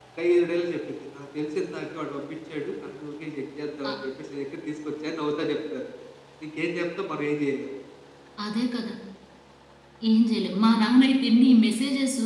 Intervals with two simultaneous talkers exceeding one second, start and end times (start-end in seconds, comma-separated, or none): none